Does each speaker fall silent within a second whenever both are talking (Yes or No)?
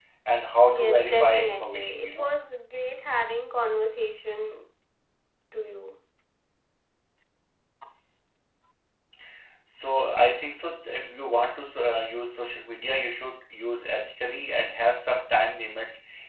No